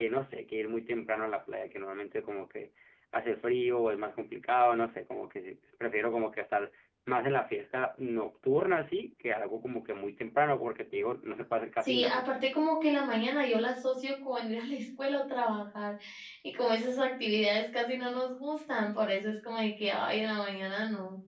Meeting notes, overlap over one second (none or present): none